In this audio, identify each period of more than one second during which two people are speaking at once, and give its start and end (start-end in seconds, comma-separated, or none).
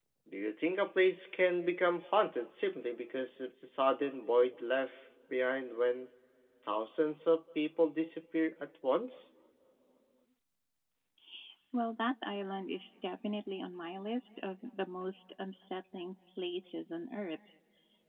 none